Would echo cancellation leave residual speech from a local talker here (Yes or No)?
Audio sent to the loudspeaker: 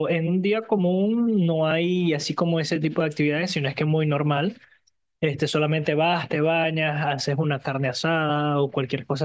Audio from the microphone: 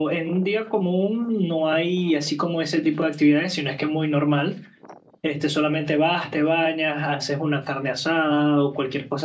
No